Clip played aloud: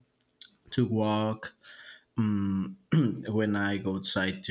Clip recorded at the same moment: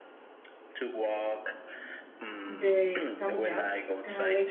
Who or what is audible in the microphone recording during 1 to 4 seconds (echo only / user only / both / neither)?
both